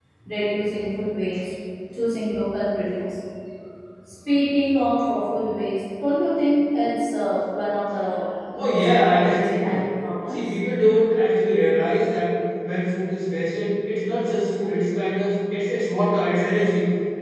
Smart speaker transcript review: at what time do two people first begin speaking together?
8.6 s

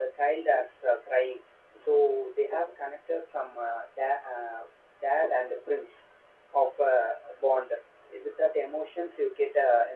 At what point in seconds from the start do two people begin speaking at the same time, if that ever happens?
none

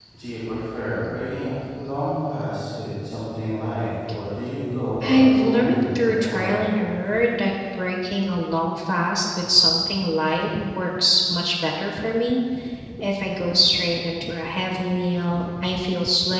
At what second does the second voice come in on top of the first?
5.0 s

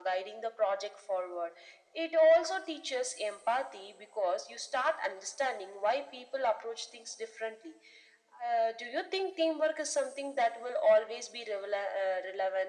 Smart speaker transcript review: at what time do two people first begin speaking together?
none

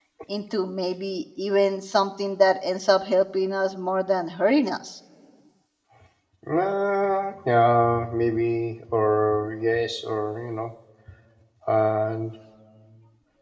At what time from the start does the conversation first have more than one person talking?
none

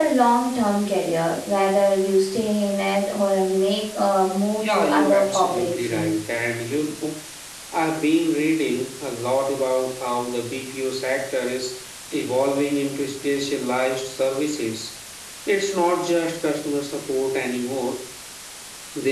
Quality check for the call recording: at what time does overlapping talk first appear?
4.6 s

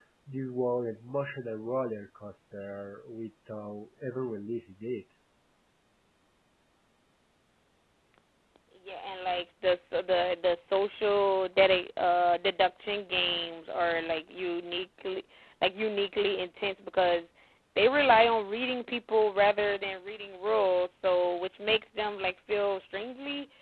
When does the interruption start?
none

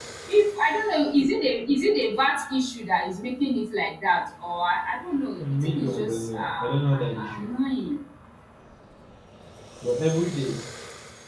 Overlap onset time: 5.4 s

